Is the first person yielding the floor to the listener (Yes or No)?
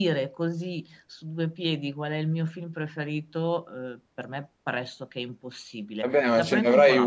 Yes